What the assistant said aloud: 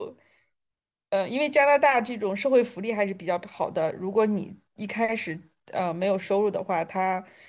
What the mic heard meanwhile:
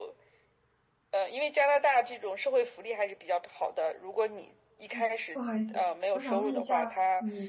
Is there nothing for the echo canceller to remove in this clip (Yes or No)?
No